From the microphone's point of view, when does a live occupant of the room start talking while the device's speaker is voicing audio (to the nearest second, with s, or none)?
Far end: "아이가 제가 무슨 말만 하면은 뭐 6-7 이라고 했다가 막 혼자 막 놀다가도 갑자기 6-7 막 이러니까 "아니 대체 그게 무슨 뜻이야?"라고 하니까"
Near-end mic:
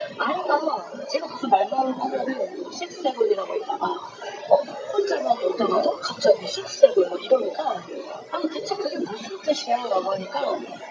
none